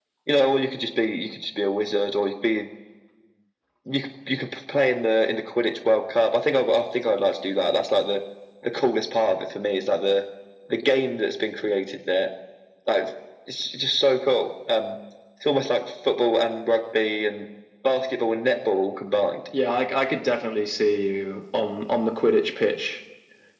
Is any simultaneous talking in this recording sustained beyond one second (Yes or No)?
No